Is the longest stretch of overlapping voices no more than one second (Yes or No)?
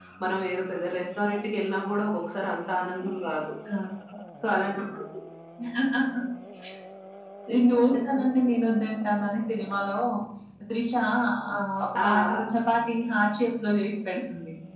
Yes